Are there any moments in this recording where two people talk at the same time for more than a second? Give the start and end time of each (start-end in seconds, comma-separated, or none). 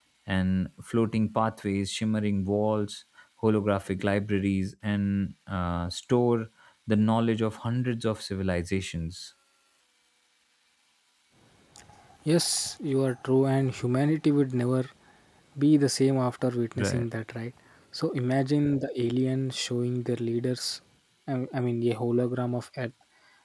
none